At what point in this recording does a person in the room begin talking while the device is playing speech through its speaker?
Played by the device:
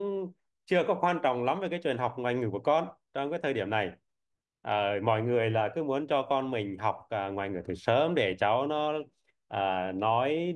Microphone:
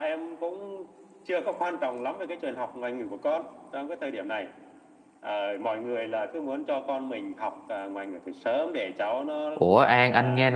9.5 s

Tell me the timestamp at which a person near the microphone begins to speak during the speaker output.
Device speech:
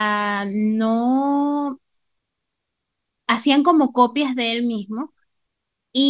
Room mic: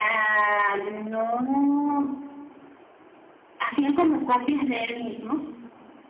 none

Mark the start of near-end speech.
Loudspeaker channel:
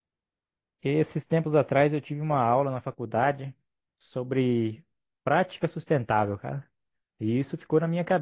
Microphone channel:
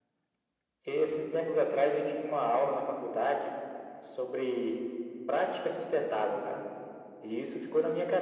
none

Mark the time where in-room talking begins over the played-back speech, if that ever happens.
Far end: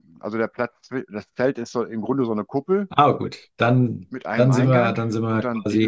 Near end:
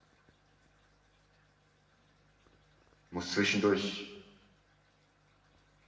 3.1 s

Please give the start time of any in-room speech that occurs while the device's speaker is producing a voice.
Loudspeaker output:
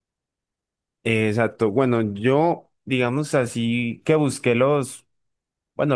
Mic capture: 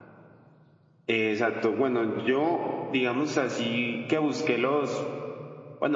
none

